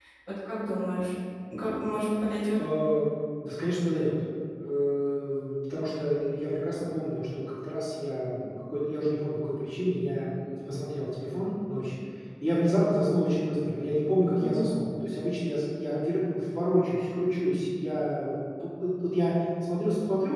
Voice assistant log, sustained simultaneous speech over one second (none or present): none